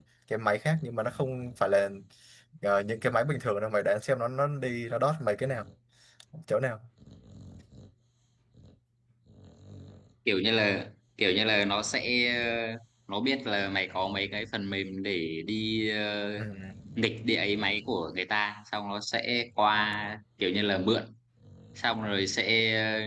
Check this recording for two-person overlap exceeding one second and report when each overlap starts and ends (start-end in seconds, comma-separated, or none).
none